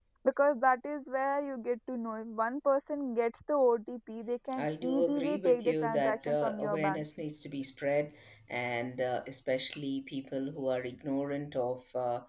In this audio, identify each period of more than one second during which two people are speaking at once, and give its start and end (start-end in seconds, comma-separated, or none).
4.6-7.0